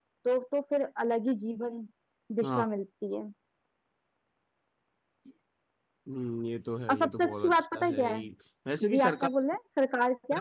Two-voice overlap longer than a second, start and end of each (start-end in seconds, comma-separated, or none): 6.9-8.2